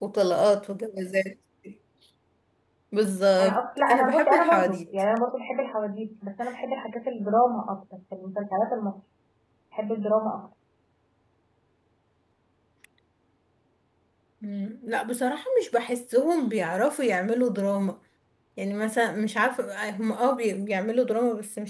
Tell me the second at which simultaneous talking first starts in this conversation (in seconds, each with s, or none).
3.4 s